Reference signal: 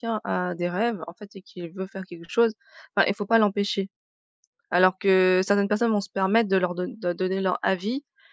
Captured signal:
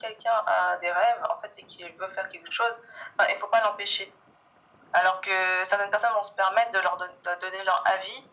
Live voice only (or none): none